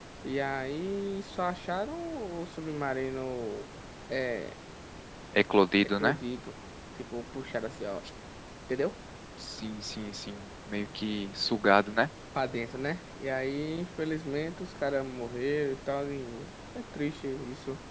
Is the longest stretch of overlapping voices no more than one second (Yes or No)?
Yes